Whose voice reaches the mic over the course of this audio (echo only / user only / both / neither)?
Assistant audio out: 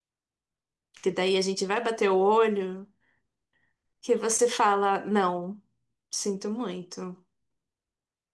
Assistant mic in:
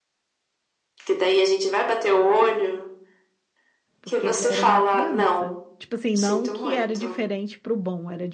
both